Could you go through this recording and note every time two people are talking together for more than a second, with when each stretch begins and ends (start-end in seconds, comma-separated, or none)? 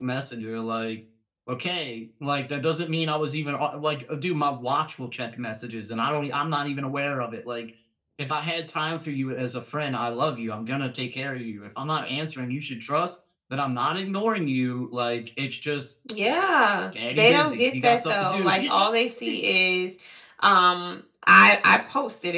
17.2-18.9